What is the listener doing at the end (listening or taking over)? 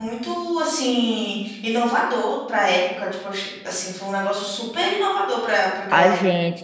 taking over